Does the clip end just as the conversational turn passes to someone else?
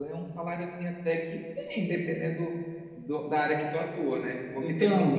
No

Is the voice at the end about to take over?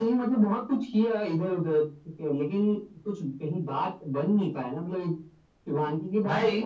No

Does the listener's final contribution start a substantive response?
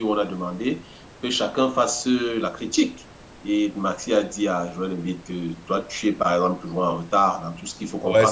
Yes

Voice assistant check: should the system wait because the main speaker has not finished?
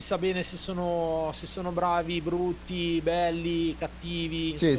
No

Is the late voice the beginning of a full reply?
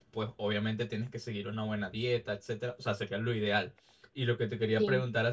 No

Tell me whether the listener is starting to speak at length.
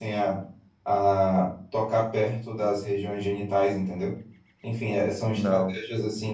No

